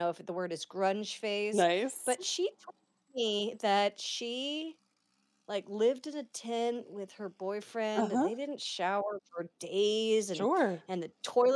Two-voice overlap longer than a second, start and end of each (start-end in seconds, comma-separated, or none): none